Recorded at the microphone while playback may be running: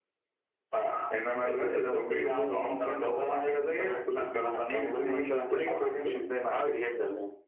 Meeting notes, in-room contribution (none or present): present